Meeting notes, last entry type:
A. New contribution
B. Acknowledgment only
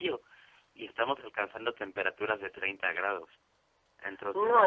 A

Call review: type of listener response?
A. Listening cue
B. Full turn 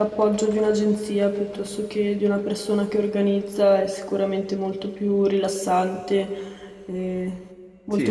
B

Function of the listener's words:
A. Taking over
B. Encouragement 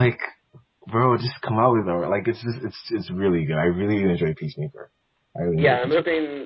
A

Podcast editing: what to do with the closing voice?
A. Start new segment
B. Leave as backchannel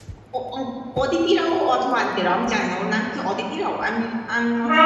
A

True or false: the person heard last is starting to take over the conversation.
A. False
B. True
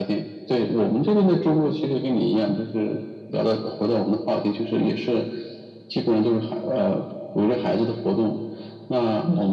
A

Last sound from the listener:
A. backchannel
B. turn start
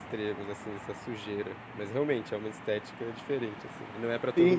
B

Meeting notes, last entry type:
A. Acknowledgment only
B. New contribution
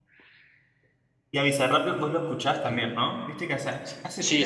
B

